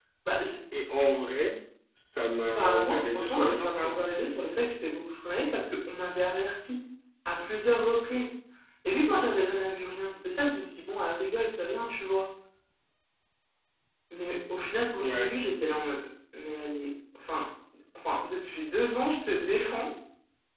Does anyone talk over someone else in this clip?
Yes, from 2.5 s

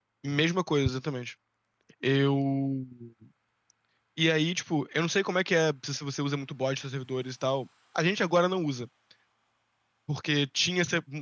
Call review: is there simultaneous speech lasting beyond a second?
No

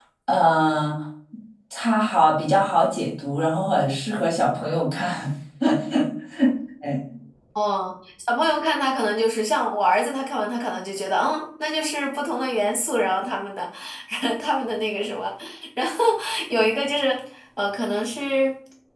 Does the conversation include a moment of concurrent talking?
No

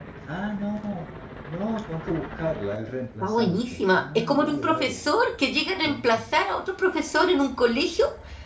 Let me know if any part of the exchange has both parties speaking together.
Yes, from 3.2 s

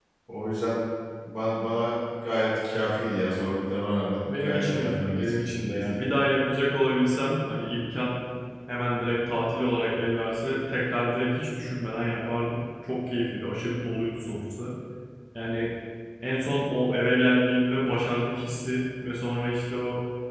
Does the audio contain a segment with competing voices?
Yes, from 4.2 s

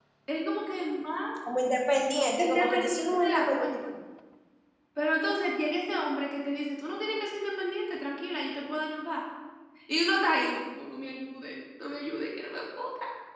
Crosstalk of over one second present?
Yes, from 2.4 s

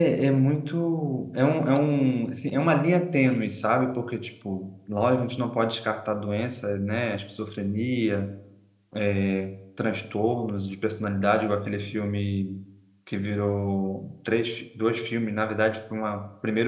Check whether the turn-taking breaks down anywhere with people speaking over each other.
No

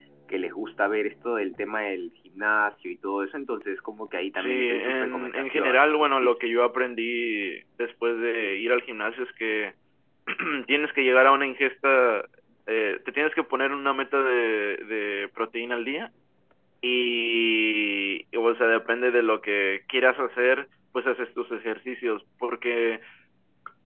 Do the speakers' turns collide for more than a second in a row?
Yes, from 4.3 s

